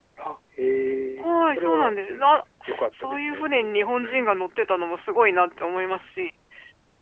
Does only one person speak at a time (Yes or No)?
No